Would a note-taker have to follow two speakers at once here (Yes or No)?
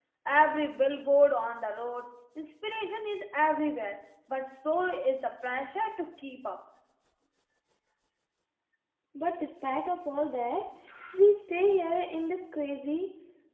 No